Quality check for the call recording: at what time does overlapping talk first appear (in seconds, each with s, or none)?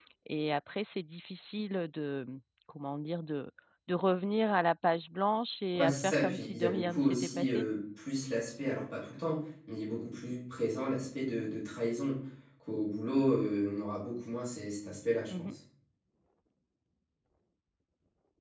5.7 s